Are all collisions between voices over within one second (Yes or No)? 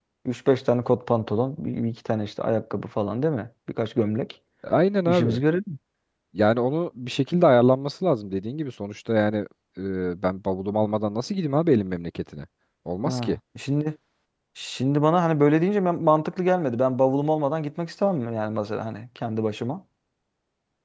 Yes